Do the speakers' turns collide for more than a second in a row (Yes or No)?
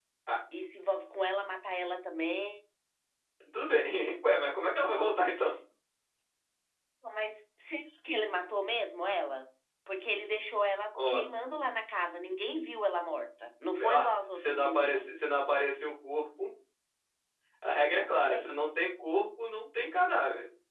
Yes